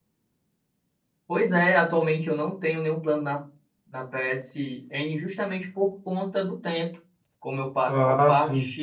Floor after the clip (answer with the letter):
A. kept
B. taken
A